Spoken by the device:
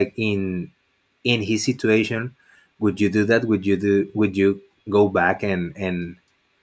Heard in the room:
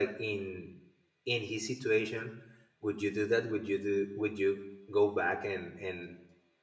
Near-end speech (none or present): none